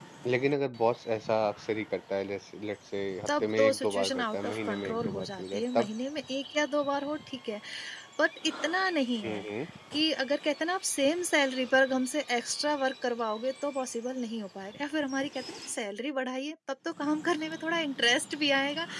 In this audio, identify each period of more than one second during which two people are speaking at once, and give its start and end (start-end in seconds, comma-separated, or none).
3.3-5.9